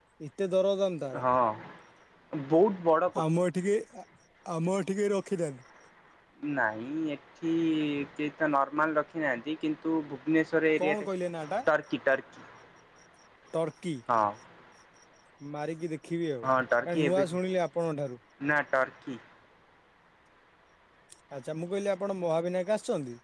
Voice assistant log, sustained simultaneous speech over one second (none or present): none